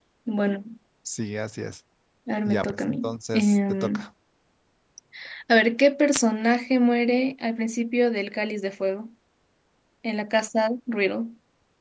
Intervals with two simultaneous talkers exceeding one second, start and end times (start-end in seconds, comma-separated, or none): 2.5-4.0